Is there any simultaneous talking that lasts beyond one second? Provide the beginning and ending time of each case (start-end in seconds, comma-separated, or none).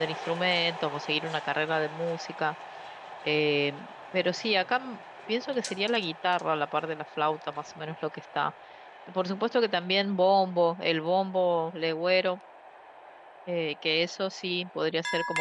none